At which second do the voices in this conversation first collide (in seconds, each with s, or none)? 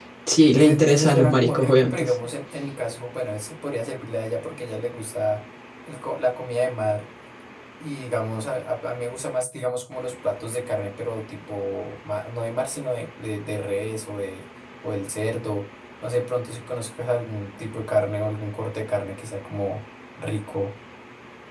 0.5 s